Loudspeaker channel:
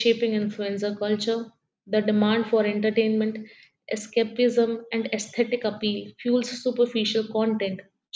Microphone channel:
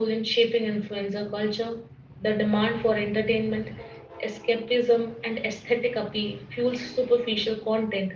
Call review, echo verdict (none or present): present